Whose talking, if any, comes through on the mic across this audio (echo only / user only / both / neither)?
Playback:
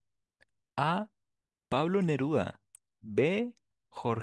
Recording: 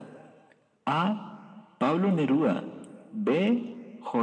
echo only